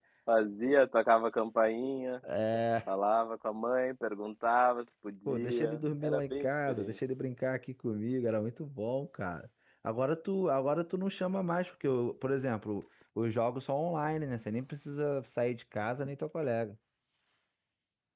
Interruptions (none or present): present